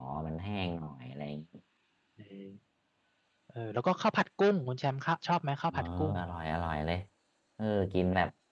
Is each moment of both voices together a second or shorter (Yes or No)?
Yes